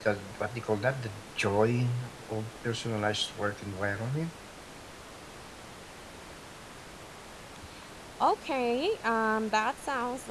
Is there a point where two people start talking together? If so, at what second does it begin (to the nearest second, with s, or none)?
none